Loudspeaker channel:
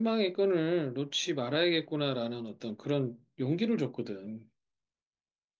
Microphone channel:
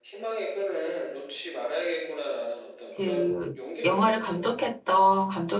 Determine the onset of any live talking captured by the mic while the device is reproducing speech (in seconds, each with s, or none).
2.9 s